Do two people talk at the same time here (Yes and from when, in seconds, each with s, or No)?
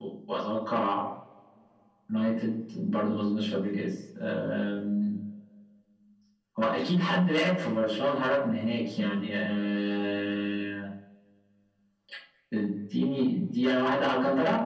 No